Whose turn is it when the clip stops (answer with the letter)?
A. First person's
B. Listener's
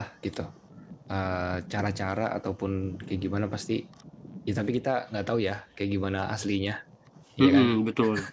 B